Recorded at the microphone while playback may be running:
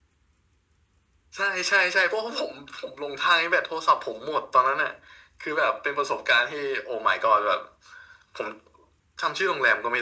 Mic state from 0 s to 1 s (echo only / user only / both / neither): neither